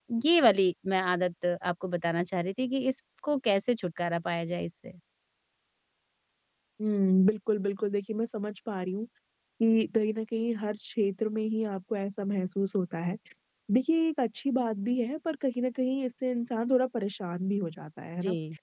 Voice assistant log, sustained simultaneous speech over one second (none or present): none